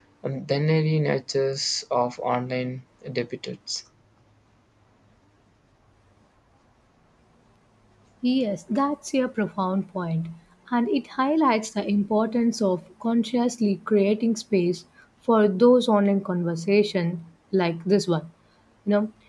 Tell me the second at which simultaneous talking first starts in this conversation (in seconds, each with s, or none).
none